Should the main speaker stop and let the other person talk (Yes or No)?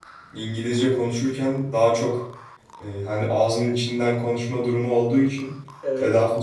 No